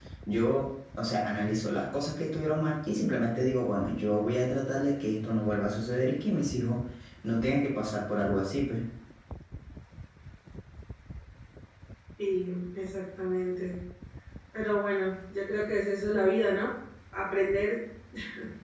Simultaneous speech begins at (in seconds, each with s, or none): none